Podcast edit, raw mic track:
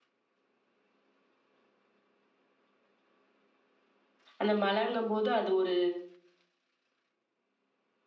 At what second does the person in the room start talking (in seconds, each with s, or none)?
4.4 s